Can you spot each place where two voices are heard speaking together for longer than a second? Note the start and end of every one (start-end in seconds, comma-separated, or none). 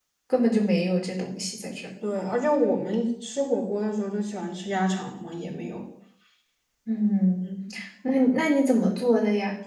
none